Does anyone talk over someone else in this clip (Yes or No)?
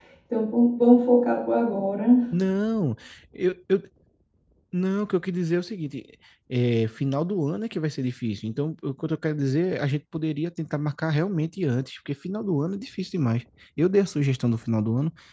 No